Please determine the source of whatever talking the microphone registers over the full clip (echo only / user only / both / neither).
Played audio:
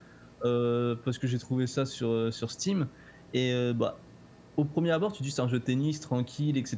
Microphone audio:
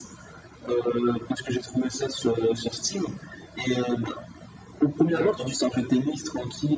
both